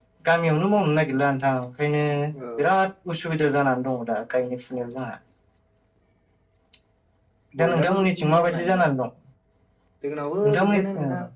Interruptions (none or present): present